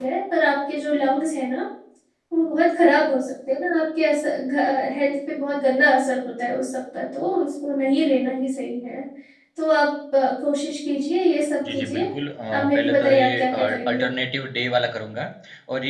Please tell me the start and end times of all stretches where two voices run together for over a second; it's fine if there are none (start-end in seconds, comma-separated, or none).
12.7-14.0